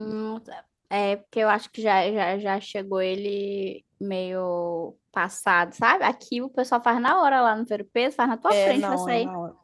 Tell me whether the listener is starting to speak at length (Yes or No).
Yes